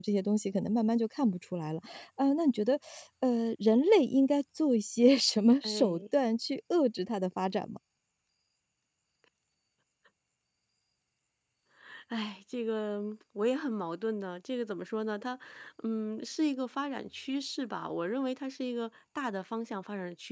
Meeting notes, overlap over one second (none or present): none